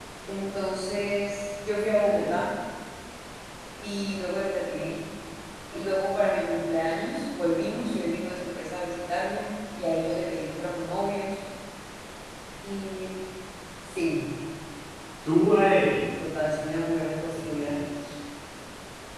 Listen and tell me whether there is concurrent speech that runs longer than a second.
No

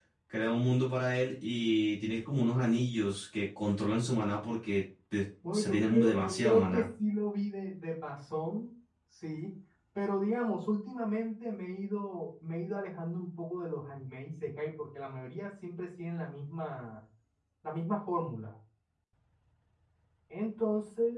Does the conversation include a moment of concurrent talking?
Yes, from 5.4 s

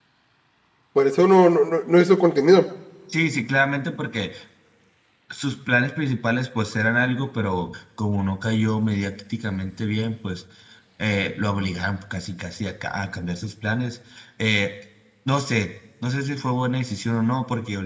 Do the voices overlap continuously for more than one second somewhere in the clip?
No

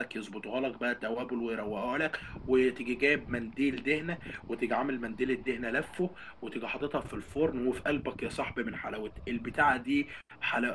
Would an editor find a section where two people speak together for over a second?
No

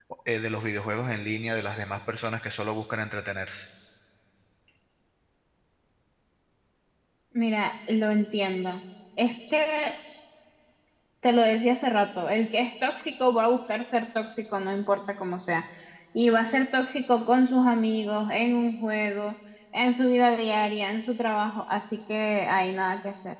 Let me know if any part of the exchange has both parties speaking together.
No

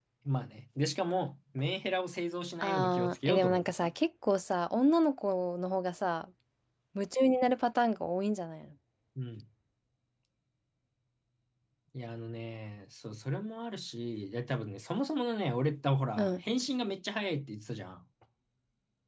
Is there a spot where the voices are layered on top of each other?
Yes, from 2.6 s

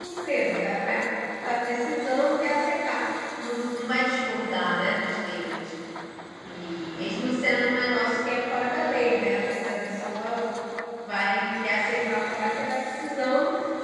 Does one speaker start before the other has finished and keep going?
No

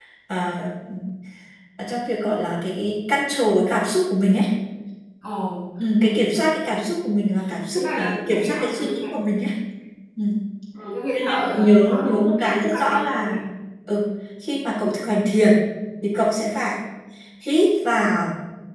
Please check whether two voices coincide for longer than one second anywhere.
Yes, from 7.8 s

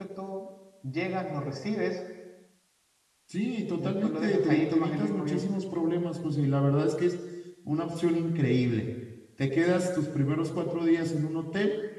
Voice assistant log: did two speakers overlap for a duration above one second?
Yes, from 3.8 s

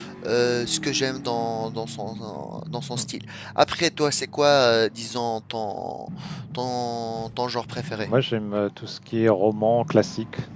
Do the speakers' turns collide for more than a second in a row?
No

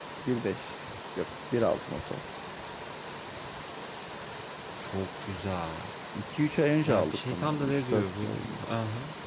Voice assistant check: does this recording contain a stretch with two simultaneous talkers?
Yes, from 6.8 s

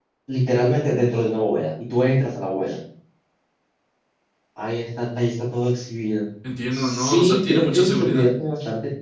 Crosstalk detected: Yes, from 6.7 s

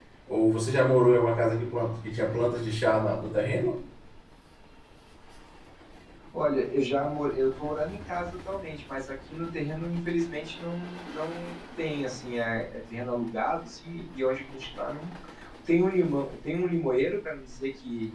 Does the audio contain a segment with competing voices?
No

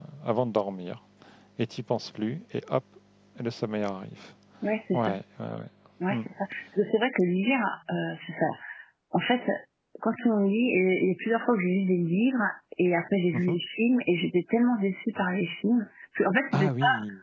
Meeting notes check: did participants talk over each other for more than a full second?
No

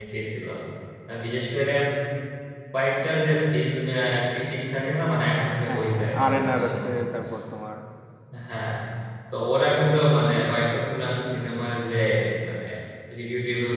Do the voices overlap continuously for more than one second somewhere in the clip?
Yes, from 5.7 s

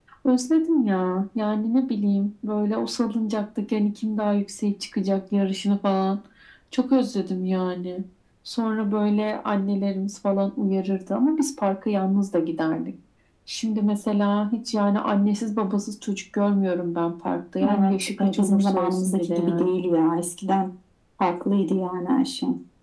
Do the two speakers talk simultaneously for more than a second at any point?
Yes, from 17.6 s

